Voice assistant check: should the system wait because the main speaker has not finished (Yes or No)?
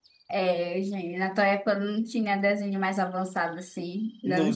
Yes